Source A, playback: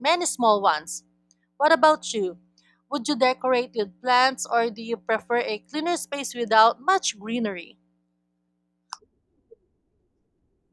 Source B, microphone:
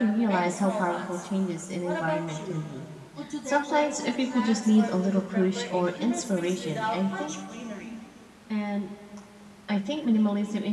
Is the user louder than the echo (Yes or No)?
Yes